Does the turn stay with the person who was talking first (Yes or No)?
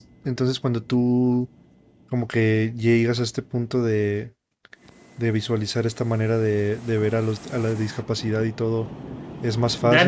No